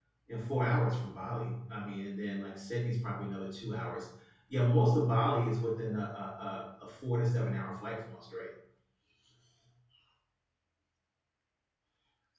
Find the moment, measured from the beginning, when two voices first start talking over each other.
none

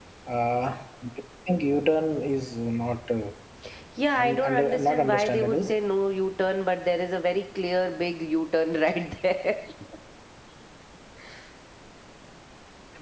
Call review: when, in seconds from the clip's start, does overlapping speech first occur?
4.2 s

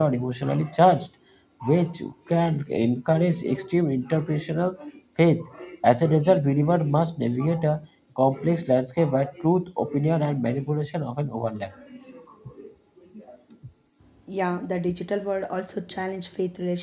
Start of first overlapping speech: none

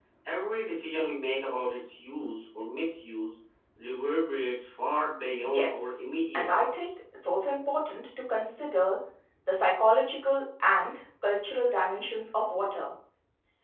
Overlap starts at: 5.4 s

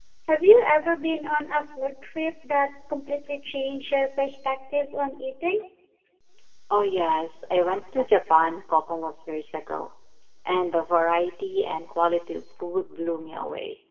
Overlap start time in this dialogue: none

